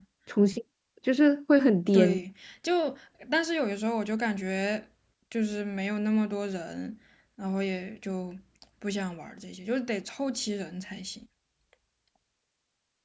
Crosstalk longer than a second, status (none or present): none